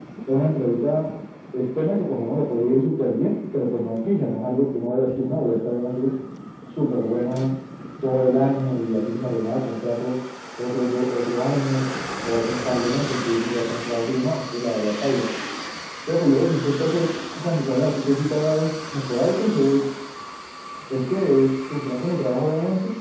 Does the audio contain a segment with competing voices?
No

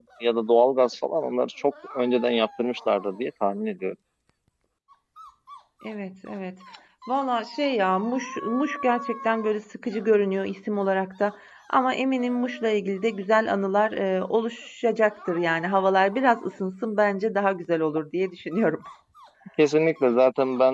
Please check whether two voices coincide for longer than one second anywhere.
No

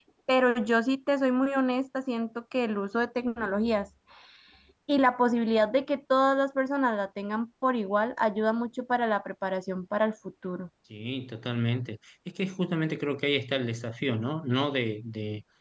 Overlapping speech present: No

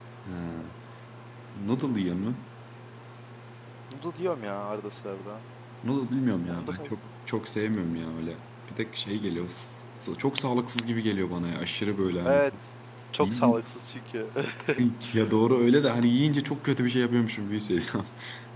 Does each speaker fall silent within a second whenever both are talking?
Yes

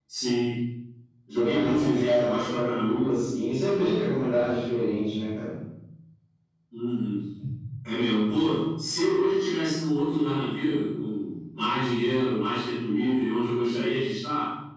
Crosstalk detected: Yes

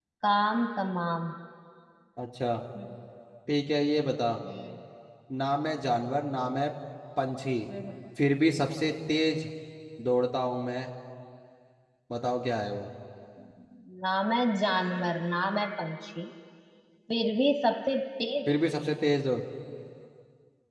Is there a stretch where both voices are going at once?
No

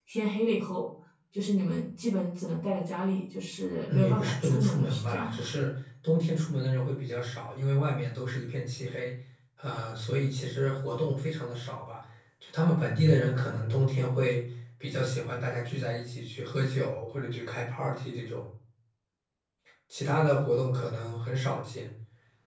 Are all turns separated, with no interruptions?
No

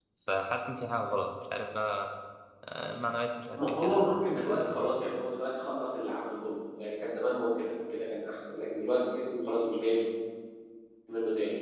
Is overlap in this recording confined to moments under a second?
No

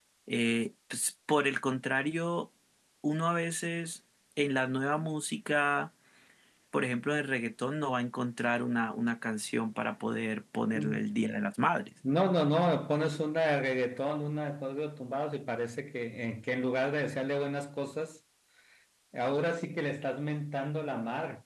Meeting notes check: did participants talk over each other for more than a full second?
No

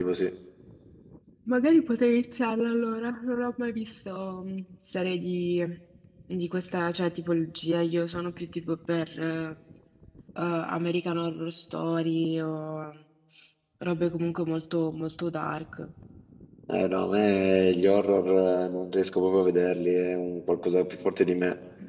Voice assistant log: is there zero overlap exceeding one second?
Yes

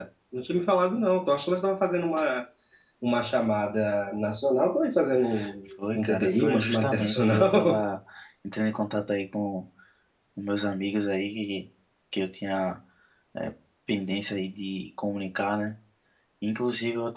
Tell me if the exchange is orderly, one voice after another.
No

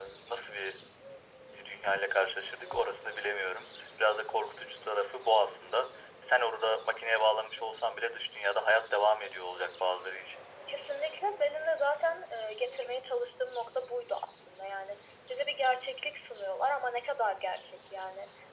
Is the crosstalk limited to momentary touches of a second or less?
Yes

